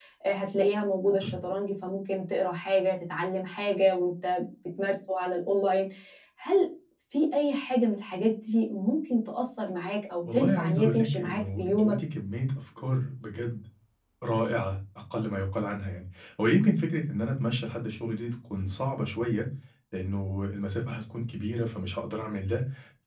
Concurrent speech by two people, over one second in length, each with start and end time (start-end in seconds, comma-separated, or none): 10.3-12.0